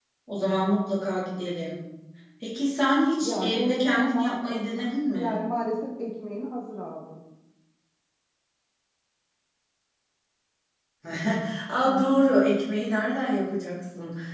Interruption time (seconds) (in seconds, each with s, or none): 3.2 s